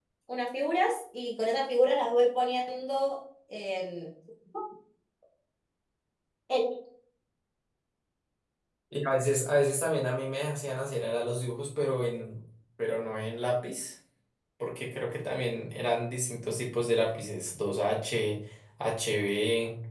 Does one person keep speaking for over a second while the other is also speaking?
No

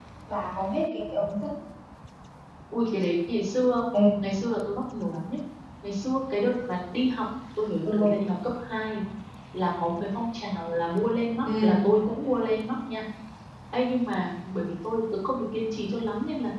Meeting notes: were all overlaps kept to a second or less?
Yes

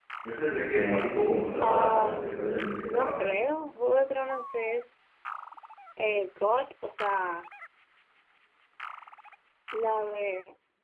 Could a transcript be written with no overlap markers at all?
No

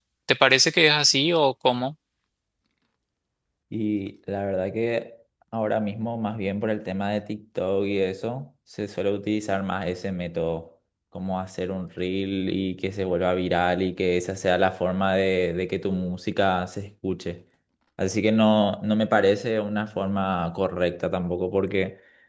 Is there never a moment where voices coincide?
Yes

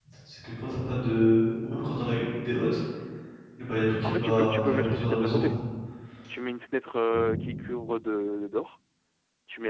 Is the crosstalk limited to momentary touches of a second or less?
No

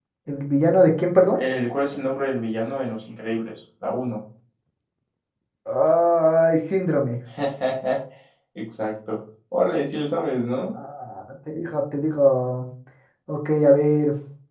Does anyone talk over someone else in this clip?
No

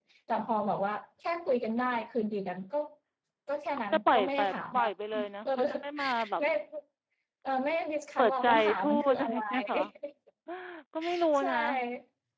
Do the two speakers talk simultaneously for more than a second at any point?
Yes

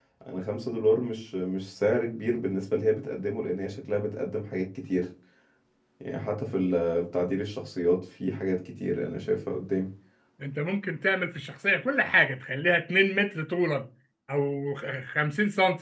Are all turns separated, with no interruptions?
Yes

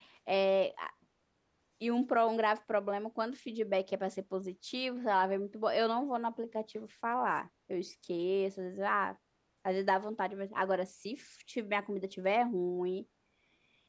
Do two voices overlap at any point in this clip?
No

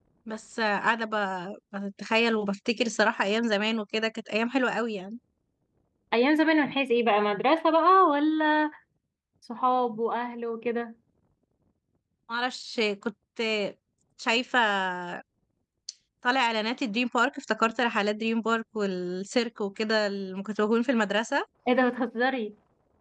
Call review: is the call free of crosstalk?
Yes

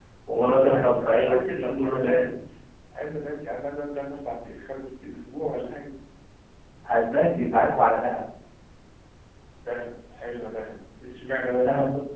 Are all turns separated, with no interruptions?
No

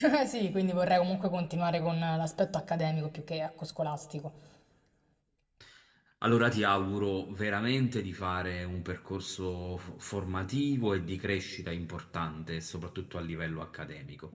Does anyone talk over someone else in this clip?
No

